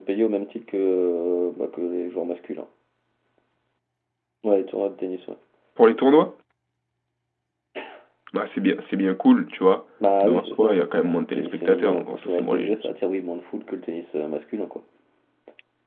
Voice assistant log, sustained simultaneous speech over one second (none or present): present